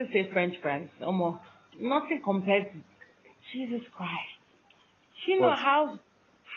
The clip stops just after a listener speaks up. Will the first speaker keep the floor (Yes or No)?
Yes